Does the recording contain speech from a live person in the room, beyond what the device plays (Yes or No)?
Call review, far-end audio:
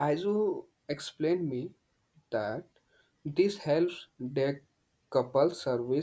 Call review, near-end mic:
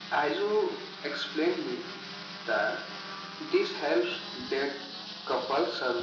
No